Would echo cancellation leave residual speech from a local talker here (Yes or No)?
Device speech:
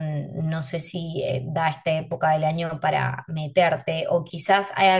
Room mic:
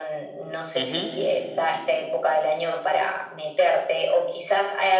Yes